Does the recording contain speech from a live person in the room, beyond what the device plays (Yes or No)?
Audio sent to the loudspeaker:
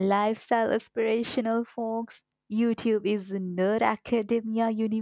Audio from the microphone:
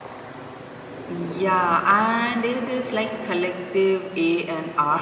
Yes